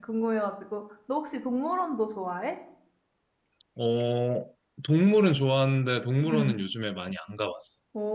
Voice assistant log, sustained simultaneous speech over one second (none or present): none